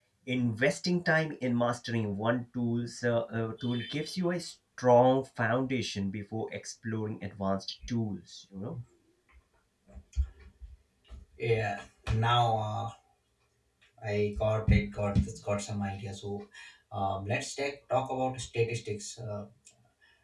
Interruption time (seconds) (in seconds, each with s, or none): none